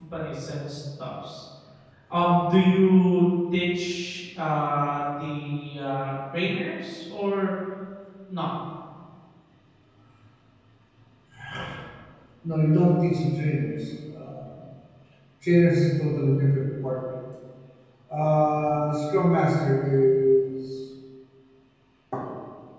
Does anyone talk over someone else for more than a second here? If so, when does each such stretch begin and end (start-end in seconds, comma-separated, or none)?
none